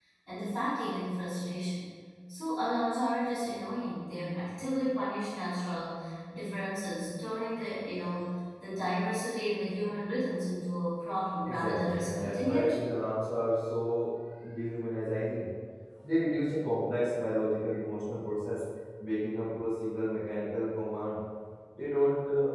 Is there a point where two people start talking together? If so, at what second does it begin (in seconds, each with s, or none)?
11.5 s